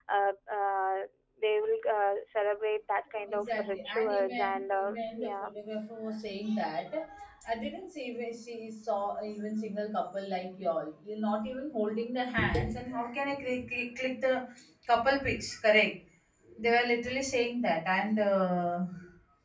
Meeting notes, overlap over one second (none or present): present